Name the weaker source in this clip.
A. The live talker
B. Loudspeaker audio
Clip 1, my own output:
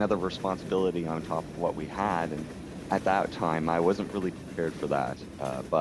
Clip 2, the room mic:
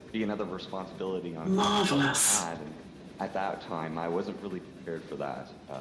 B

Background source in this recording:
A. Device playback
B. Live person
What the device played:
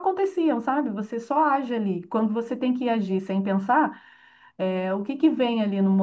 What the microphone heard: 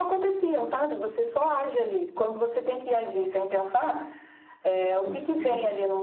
B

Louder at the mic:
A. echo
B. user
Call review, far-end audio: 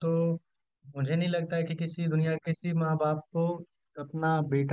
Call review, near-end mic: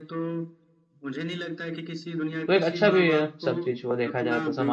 B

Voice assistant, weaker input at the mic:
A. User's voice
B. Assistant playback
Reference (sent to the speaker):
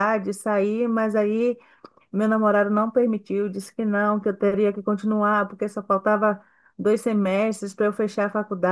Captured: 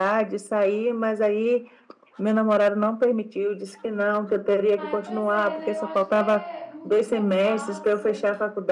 A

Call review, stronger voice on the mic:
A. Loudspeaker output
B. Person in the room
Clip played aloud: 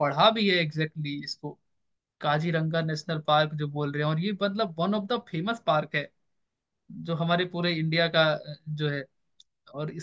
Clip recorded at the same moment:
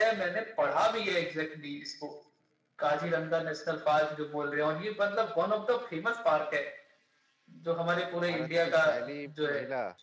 A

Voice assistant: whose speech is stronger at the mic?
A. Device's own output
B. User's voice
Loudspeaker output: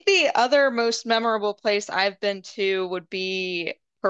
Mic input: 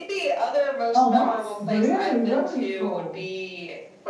B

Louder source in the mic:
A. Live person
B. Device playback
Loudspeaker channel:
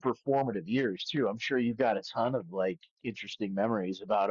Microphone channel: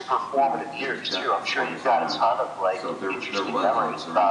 B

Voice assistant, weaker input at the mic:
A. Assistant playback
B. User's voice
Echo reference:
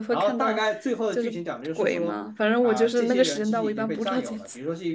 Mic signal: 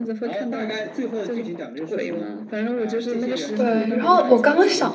A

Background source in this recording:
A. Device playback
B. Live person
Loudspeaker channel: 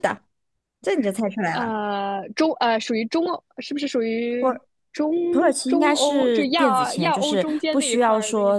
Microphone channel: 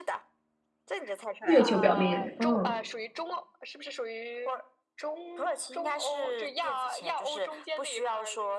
A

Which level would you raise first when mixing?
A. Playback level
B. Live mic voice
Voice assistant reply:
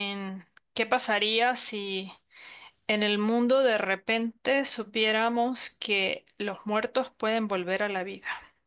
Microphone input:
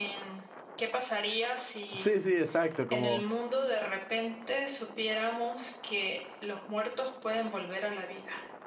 A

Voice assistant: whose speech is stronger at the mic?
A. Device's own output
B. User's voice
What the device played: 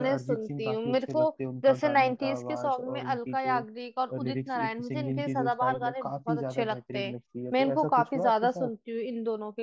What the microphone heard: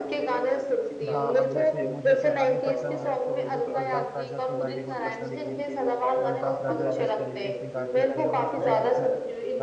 A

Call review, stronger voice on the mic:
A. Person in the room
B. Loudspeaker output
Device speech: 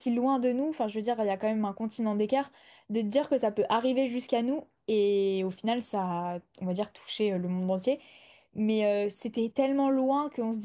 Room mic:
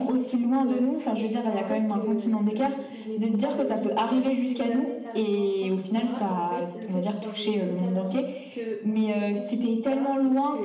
B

